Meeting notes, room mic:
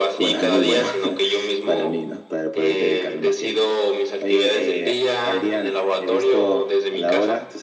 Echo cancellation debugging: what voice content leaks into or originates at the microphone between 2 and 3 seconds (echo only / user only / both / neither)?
both